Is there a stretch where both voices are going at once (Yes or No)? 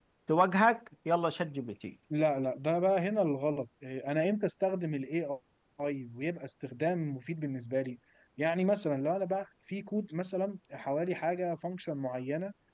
No